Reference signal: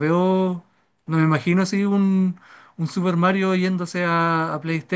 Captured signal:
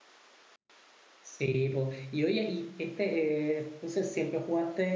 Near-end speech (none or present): present